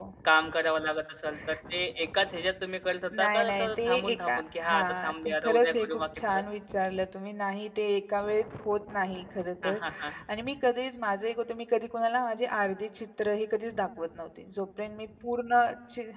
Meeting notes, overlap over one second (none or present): present